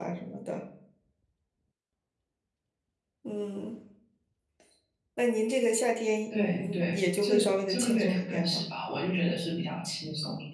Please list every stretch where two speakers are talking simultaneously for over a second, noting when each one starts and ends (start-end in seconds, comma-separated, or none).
6.3-8.7